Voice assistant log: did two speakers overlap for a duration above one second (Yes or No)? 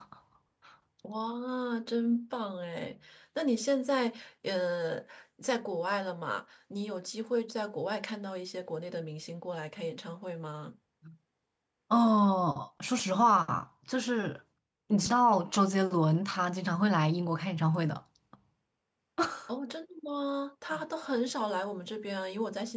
No